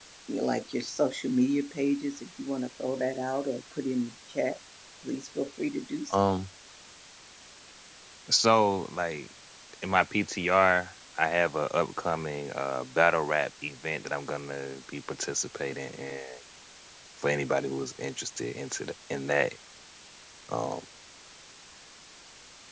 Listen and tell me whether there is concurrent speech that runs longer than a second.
No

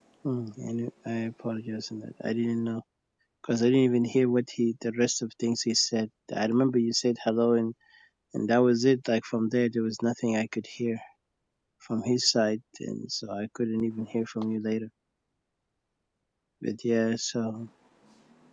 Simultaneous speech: No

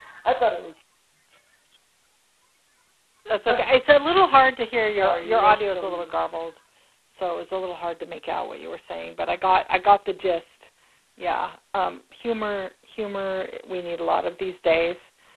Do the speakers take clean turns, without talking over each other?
No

